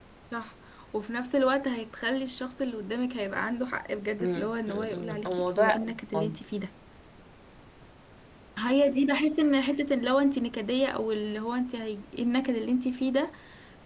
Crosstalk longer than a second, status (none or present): present